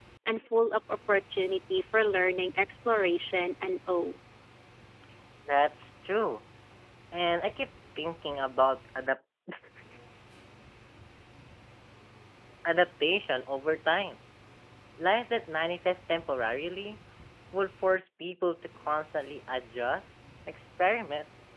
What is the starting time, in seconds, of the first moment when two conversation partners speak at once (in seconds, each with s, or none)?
none